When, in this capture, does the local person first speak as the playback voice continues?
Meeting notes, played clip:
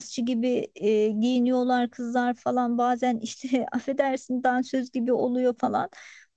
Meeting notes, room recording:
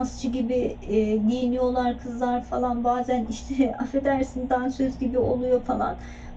none

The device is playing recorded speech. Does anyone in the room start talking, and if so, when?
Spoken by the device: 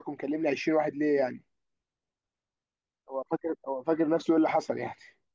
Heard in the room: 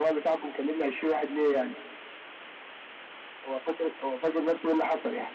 none

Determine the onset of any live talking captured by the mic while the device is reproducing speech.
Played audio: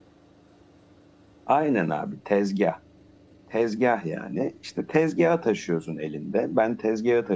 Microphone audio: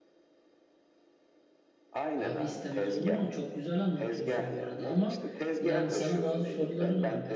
2 s

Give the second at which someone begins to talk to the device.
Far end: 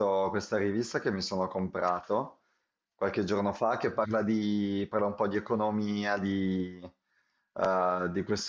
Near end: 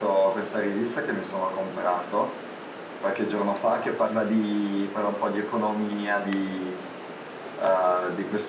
none

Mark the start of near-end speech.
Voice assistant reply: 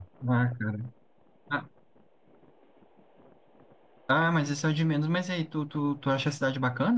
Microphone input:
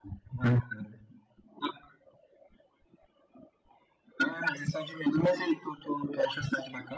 none

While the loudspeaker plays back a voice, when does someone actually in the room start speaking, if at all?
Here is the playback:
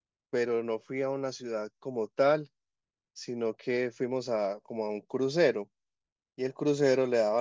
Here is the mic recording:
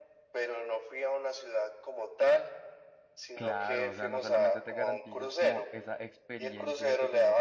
3 s

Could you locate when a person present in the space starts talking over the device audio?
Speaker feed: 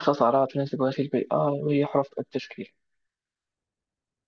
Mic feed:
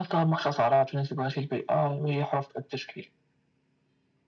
none

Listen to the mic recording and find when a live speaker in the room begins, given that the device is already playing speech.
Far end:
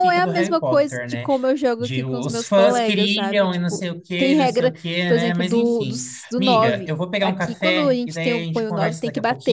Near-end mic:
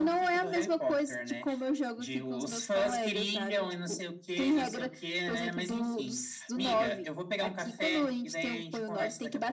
none

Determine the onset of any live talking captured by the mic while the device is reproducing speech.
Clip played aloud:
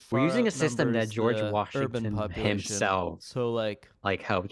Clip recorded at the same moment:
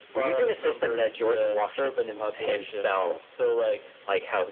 none

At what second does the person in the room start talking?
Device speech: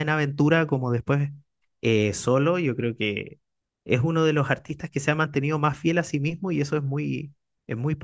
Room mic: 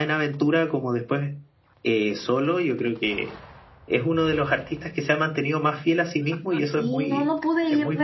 7 s

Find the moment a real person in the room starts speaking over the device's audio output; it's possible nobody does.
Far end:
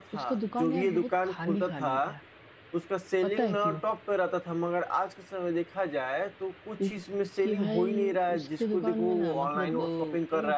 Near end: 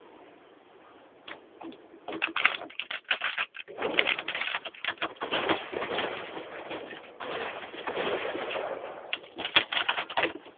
none

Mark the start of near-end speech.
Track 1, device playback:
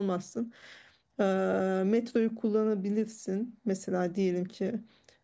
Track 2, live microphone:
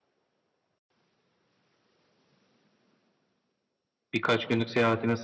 4 s

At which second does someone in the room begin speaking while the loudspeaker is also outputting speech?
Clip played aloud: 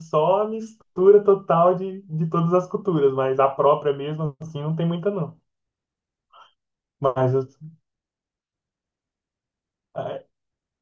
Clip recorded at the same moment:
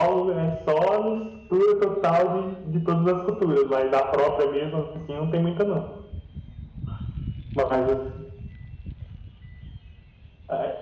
none

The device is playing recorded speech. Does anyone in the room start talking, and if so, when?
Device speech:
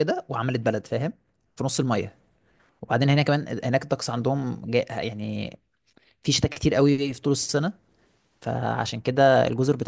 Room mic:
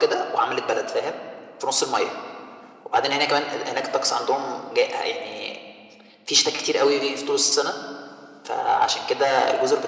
none

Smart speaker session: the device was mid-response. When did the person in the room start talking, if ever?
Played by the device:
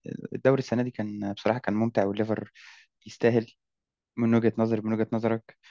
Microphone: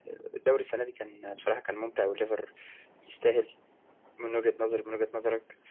none

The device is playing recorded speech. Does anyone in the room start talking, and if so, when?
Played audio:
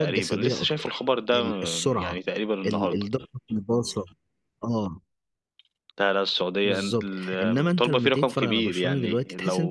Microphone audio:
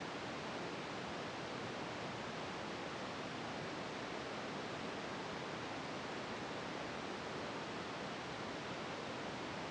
none

